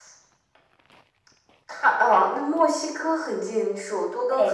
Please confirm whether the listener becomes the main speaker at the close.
Yes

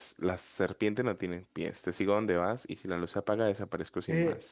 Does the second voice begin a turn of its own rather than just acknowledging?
Yes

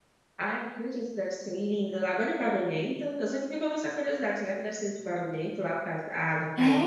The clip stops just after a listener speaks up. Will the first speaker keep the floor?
No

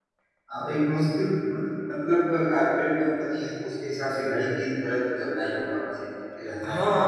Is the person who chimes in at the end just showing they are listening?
No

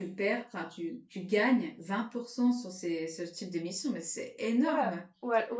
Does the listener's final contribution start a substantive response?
Yes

